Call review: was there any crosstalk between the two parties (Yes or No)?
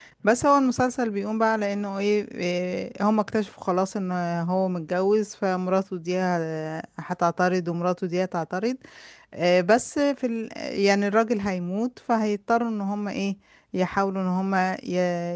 No